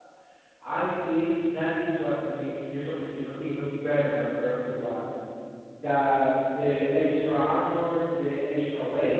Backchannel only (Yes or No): Yes